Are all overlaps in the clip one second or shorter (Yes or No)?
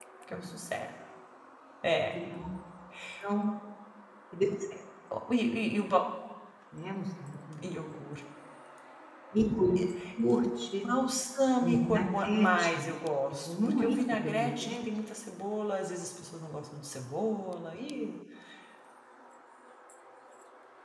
No